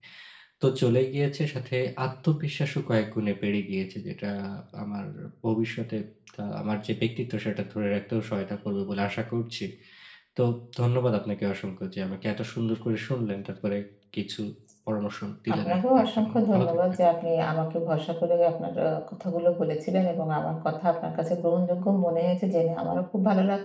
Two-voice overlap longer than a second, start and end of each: 15.5-16.8

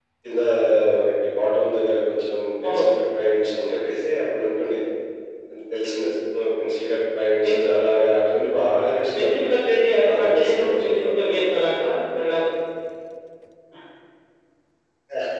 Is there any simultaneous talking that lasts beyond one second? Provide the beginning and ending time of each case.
10.1-11.5

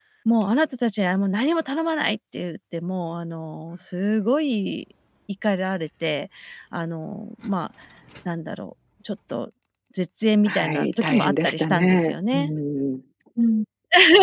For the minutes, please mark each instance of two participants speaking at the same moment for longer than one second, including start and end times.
10.5-12.5

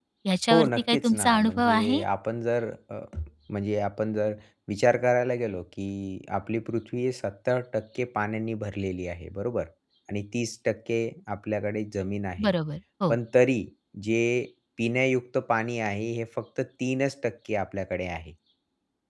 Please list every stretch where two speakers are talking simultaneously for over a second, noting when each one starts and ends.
0.5-2.0

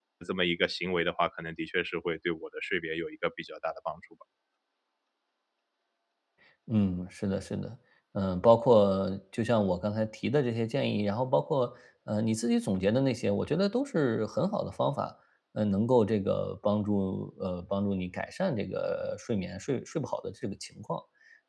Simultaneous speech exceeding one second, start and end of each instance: none

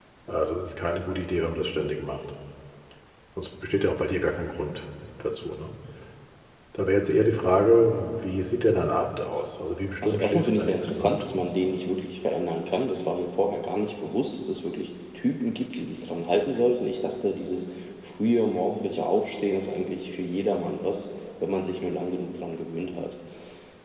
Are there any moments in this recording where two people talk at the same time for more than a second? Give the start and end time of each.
10.0-11.2

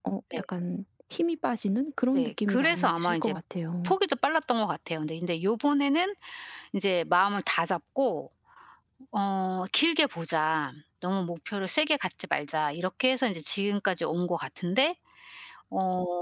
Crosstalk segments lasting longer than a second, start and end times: 2.1-3.3

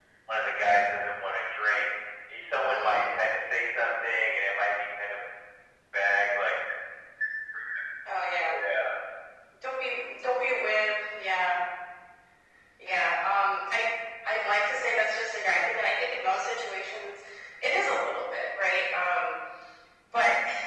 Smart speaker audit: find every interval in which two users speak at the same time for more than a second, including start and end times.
none

